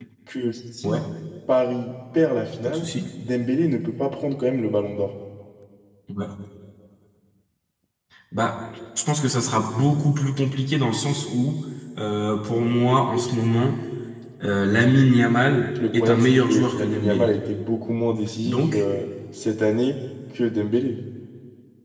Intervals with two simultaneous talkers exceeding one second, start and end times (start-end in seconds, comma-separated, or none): 15.9-17.3